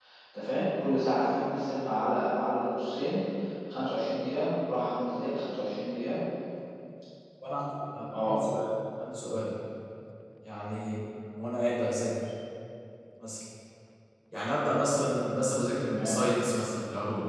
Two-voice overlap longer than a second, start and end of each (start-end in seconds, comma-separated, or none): none